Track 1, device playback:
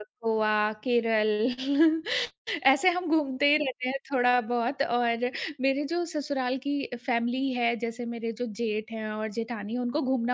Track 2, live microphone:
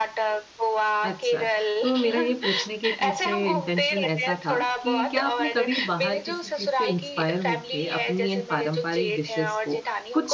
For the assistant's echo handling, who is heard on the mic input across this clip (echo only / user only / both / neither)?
both